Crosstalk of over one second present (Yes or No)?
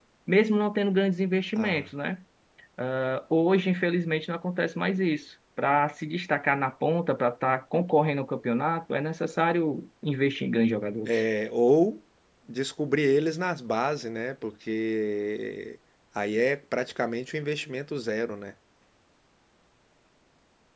No